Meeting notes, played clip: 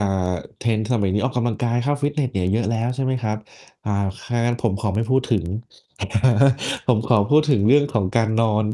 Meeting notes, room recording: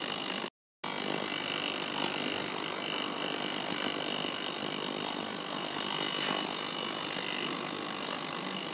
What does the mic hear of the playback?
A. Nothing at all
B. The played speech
A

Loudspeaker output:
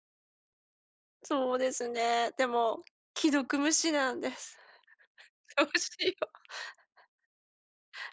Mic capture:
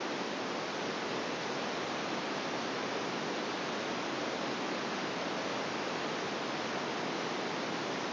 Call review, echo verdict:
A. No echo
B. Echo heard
A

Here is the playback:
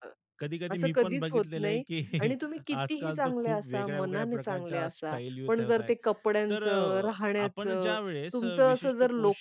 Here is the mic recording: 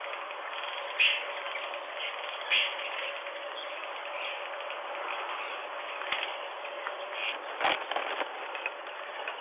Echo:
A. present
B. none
B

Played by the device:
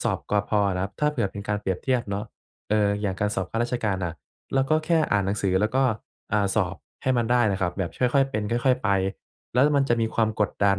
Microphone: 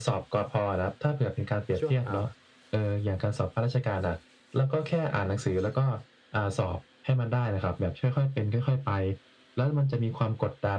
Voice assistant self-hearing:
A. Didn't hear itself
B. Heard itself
B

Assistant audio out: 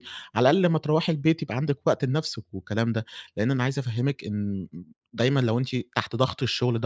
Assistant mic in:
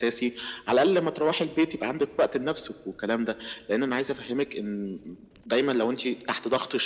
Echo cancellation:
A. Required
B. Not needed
A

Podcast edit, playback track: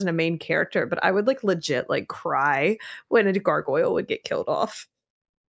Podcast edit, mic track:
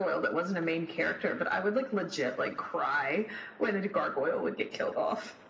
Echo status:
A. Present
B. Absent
A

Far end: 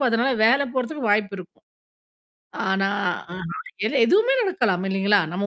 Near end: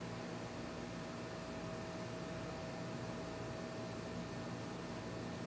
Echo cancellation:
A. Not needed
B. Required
A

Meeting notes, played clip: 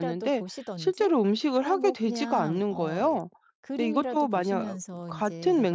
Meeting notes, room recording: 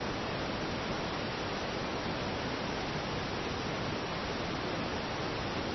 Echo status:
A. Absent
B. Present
A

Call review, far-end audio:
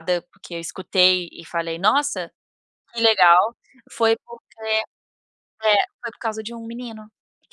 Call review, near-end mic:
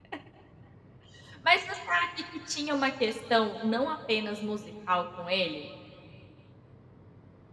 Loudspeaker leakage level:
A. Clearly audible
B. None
B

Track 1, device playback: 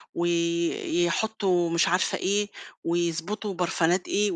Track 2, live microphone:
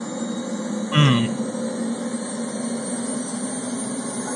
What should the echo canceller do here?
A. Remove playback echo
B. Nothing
B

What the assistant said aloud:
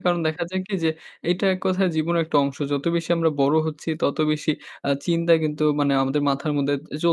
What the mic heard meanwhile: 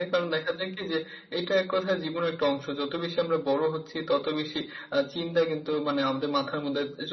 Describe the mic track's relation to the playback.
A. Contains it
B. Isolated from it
A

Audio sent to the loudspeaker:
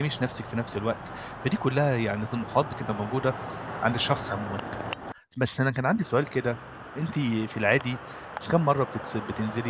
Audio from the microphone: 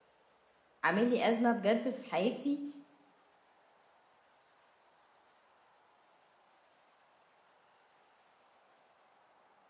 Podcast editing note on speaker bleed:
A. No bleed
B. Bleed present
A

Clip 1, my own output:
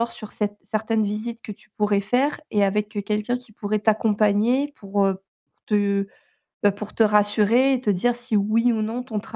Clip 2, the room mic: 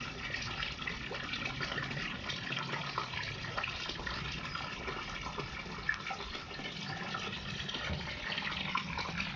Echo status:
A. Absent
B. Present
A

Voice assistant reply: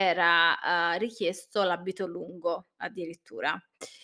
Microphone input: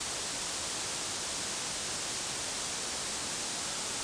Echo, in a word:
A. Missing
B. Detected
A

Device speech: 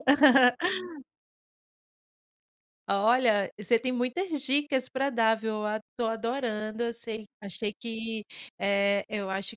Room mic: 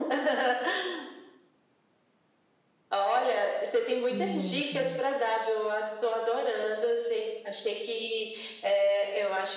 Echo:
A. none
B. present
B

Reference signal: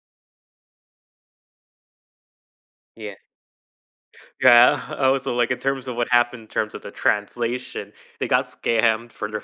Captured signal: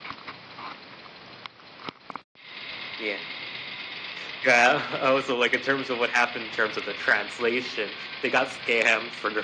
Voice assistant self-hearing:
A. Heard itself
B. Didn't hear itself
A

